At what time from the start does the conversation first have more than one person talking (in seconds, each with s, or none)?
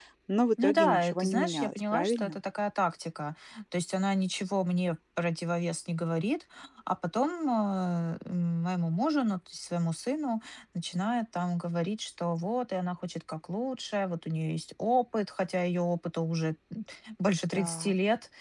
0.6 s